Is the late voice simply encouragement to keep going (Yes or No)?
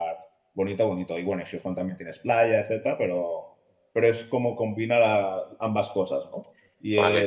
No